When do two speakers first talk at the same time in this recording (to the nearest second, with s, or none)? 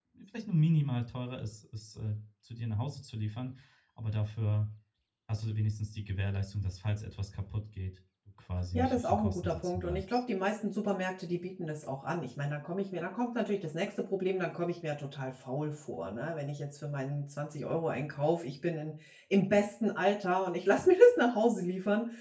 9 s